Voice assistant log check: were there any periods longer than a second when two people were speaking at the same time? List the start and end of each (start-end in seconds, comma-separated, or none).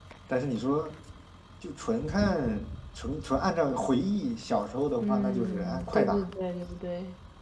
5.0-6.2